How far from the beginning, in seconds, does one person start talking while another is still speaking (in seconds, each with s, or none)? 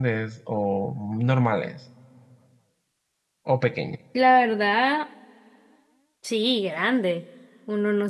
none